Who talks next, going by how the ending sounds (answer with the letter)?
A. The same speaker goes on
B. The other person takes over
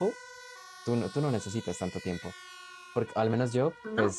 A